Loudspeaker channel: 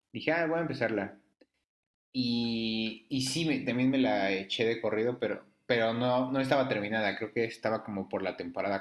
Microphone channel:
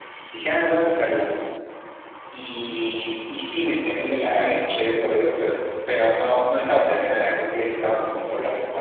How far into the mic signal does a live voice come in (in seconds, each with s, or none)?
none